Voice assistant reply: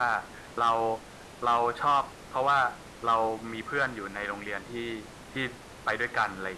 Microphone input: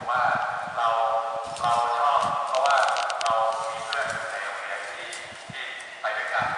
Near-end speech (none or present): none